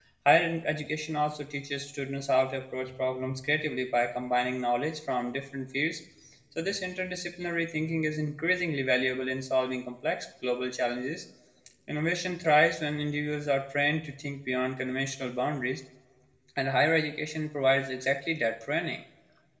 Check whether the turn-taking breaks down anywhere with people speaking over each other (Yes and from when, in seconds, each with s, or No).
No